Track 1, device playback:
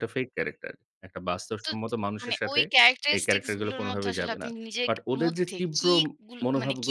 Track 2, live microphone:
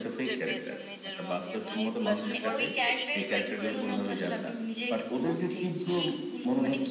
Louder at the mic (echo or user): echo